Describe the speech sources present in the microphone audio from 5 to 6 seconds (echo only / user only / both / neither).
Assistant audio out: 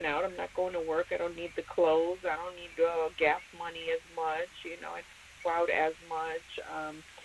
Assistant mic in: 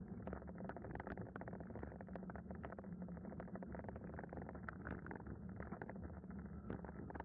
neither